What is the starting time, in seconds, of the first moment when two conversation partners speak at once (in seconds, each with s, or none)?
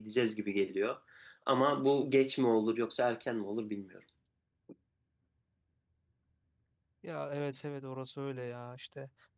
none